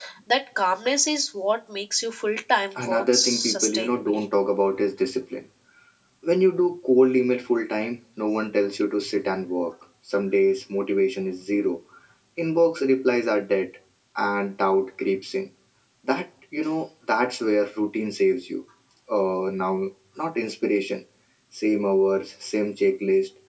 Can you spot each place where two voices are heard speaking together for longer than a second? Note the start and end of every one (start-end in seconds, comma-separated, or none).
2.8-4.2